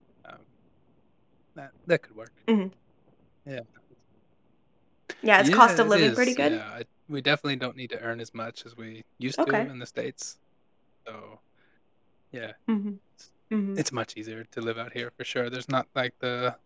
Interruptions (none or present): present